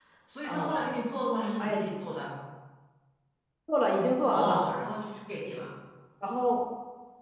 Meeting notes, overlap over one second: none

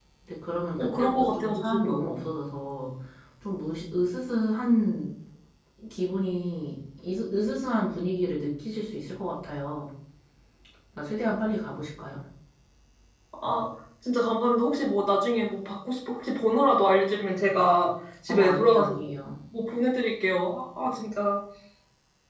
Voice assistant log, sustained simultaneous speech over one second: present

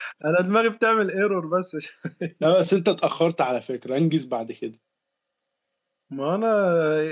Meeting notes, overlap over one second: none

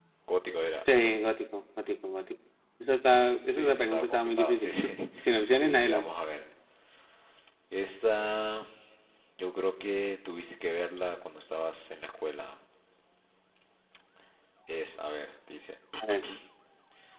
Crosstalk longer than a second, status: present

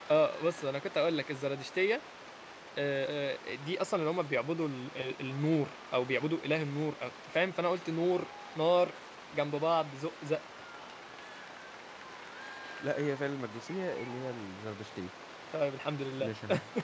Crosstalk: none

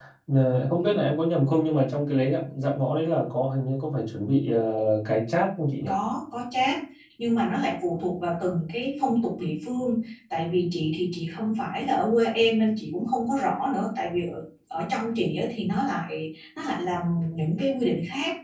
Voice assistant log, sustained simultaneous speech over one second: none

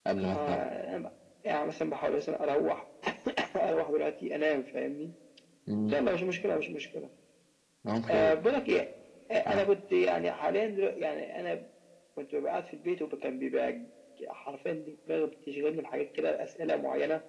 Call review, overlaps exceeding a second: none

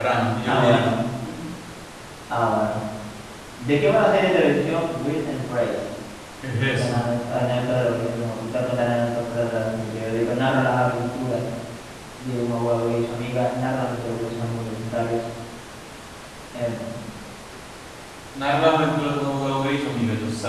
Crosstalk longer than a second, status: none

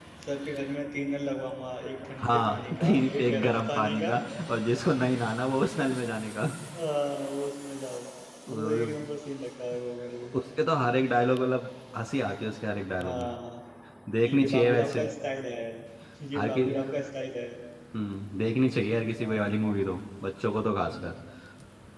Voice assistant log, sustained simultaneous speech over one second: present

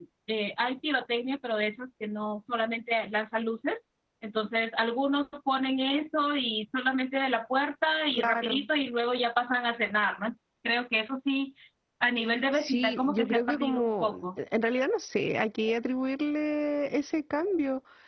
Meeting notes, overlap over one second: present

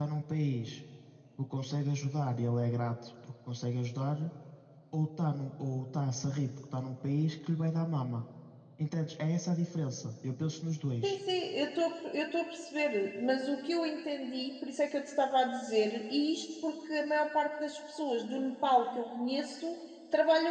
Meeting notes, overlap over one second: none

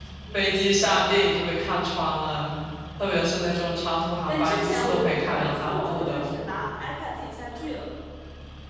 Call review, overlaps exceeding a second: present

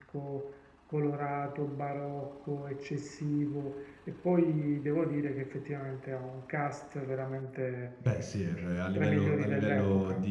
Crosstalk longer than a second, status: present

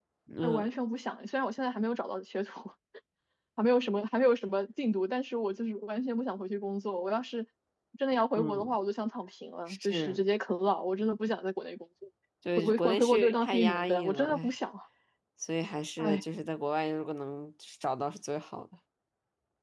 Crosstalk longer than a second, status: present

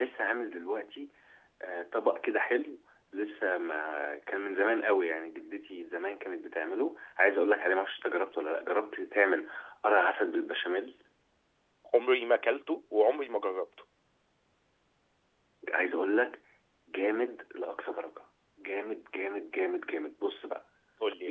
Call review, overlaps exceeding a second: none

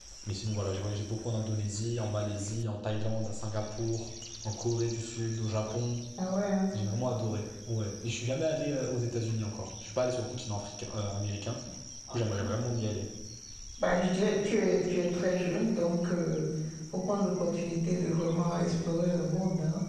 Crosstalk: none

